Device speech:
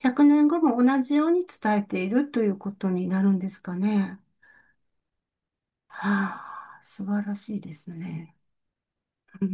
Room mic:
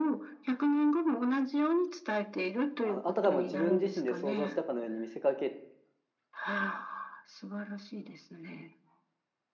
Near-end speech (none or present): present